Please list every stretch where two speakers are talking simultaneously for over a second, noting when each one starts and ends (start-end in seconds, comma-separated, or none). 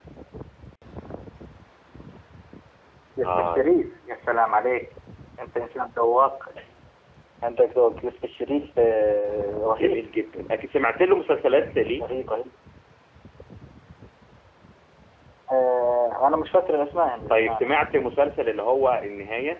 none